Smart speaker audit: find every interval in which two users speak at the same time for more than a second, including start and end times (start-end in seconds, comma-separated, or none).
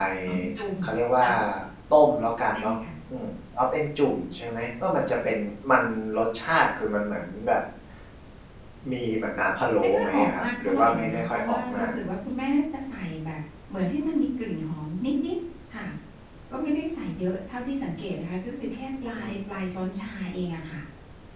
9.8-11.9